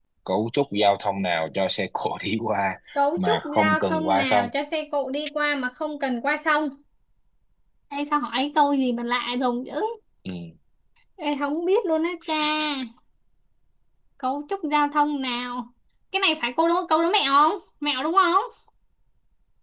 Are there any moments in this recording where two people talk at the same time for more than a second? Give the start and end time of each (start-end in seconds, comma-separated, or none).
3.2-4.5